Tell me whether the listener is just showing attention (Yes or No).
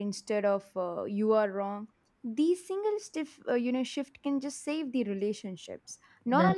Yes